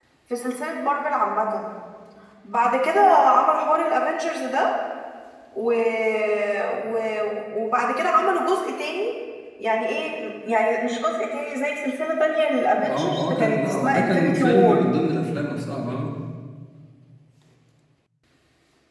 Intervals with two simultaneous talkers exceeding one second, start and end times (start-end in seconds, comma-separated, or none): 12.9-14.9